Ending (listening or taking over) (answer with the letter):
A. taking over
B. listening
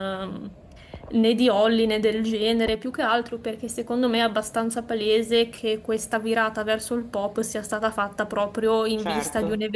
B